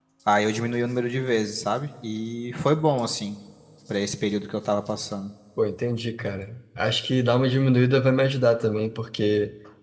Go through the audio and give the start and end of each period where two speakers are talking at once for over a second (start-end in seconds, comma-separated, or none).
none